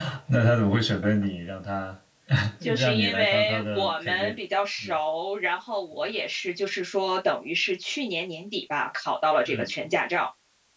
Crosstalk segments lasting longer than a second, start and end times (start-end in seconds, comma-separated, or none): 2.7-4.4